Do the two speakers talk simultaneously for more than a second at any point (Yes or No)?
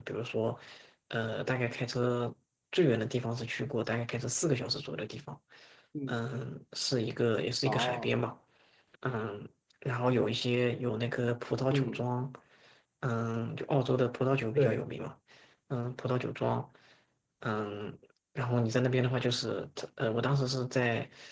No